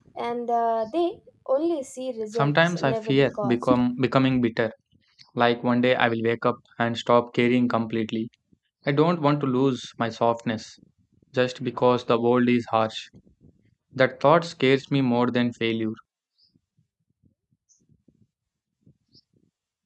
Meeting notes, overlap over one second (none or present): present